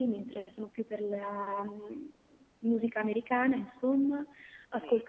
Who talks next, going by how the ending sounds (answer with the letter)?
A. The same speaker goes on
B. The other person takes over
A